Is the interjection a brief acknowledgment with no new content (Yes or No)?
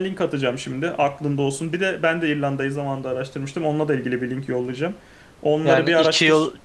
No